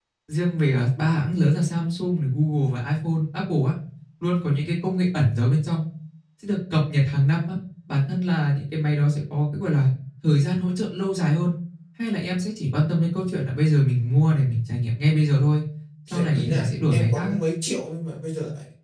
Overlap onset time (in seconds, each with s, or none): 16.1 s